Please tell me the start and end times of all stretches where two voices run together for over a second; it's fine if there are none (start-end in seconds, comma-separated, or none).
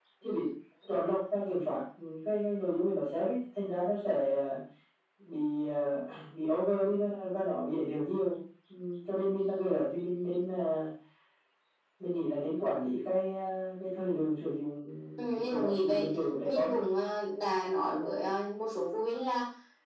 15.3-16.8